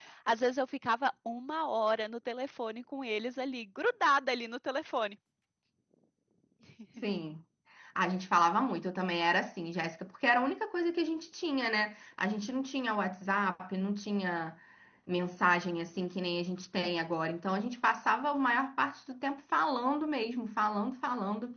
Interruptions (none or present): none